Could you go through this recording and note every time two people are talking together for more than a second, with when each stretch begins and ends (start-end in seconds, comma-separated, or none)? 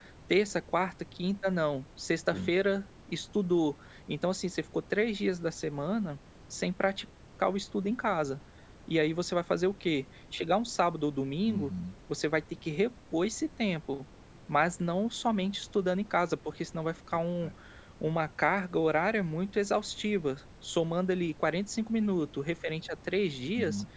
none